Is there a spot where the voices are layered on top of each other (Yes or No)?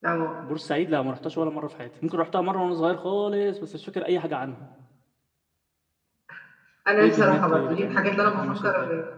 Yes